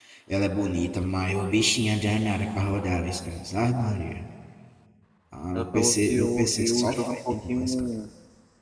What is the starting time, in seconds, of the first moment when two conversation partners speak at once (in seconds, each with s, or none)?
5.5 s